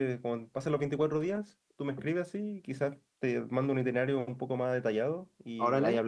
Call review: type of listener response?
taking over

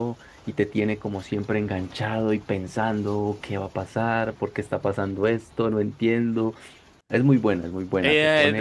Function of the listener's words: taking over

